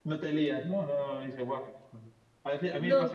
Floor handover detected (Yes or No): No